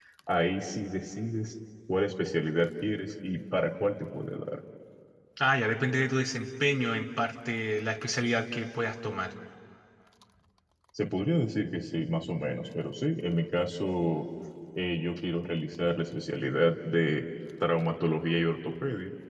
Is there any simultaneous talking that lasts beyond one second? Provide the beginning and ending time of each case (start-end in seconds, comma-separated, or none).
none